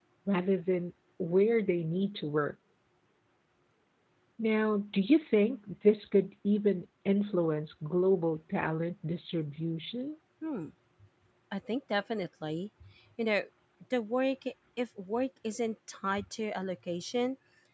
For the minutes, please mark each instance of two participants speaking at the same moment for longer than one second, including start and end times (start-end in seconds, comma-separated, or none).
none